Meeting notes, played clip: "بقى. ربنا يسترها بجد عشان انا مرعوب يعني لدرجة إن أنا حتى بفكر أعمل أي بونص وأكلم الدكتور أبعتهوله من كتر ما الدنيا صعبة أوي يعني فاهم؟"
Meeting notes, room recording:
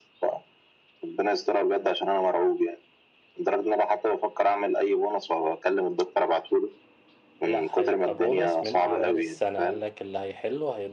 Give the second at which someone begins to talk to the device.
7.5 s

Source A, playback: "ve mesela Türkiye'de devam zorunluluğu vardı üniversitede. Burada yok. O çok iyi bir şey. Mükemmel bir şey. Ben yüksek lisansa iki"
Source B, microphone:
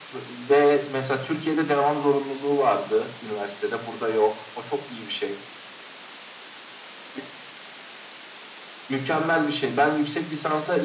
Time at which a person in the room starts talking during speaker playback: none

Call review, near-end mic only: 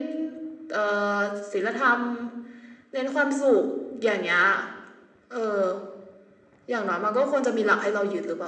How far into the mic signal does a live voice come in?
none

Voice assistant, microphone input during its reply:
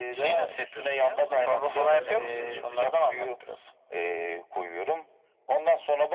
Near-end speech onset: 1.1 s

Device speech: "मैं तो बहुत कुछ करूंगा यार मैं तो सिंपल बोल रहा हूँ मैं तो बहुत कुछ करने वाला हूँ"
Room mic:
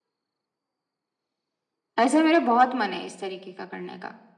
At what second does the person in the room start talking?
2.0 s

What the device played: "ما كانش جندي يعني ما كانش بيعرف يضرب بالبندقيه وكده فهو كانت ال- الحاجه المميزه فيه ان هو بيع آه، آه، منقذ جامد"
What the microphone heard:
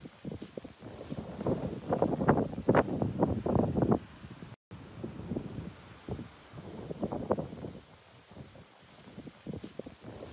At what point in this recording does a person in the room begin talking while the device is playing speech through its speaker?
none

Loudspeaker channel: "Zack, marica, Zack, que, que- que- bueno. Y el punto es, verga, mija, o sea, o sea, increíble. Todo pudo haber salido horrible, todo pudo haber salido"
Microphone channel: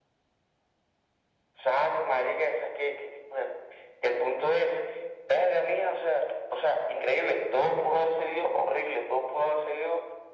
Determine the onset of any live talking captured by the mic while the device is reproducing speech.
none

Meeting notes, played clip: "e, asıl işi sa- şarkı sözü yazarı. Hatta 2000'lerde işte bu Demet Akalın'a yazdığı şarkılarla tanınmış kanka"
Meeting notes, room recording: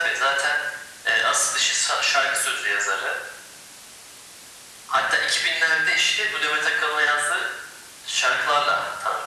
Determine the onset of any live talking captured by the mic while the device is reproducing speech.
none

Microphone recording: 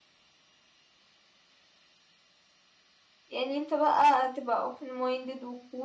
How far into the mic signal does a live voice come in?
3.3 s

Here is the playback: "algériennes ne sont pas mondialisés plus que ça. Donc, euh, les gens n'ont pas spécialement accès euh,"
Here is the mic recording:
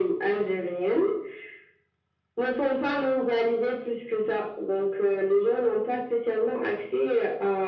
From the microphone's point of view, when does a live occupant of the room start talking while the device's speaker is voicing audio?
none

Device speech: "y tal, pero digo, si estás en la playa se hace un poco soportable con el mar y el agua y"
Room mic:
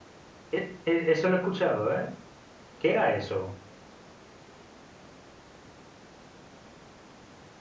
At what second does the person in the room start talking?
0.6 s

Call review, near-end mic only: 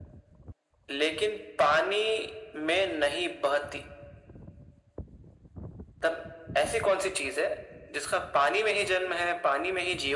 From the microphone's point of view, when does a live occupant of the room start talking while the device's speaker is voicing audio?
none

